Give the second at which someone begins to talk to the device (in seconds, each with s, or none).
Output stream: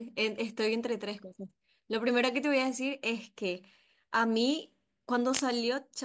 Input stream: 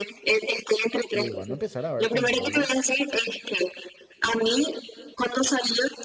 1.1 s